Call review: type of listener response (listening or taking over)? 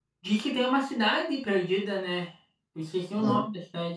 taking over